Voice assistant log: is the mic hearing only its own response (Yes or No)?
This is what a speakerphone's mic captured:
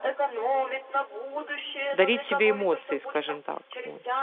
No